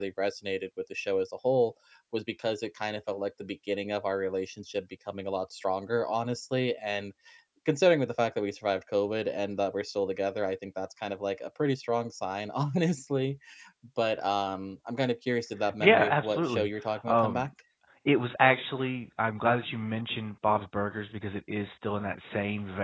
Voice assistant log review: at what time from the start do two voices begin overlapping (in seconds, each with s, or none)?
15.8 s